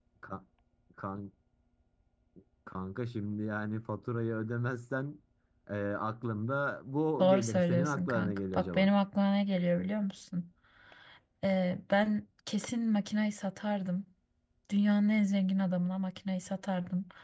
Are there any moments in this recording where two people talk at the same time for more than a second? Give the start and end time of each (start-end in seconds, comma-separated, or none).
7.2-8.9